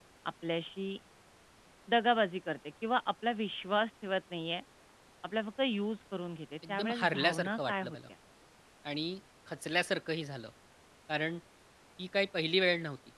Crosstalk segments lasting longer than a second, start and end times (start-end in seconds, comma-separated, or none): 6.7-8.0